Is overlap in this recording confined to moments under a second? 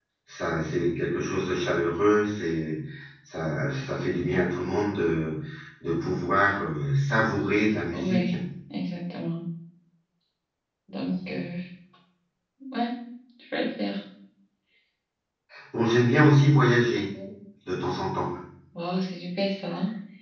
Yes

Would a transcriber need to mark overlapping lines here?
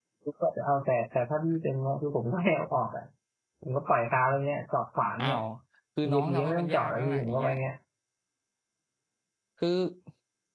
Yes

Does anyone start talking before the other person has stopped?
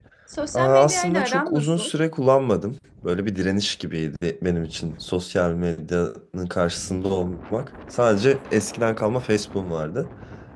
Yes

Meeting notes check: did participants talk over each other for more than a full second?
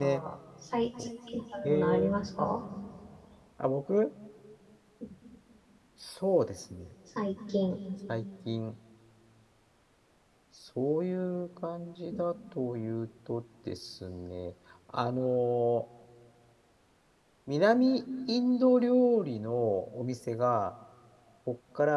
No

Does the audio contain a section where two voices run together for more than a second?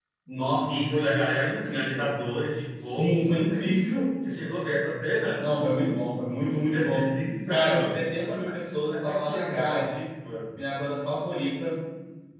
Yes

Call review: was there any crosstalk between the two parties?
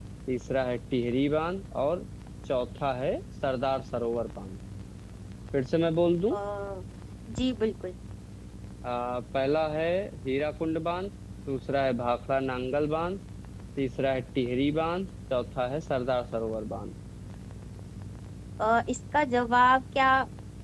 No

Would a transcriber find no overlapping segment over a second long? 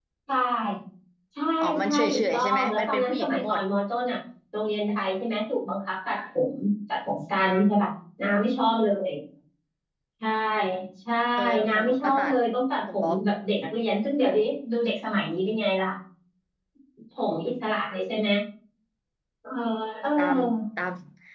No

